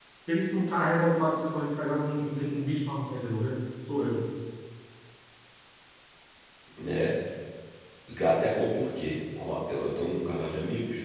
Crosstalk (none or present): none